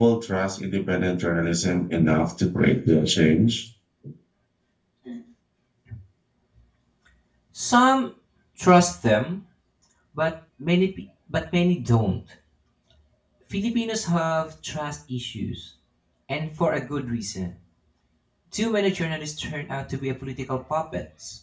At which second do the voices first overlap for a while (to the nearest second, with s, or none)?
none